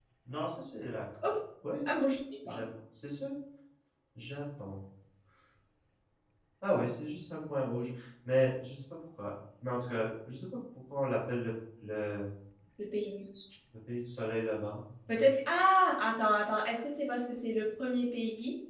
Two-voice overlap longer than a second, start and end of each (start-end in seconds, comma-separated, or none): none